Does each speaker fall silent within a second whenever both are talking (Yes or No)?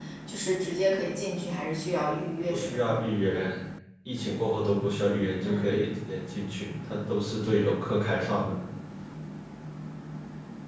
Yes